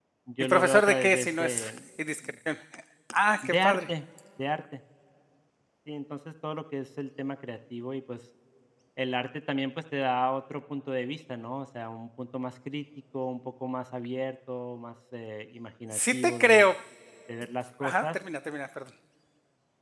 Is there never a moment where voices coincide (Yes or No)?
No